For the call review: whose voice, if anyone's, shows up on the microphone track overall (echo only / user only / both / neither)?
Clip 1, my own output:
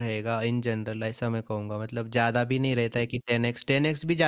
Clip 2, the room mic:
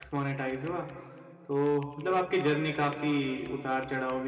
user only